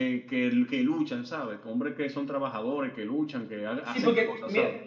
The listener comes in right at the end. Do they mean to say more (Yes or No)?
Yes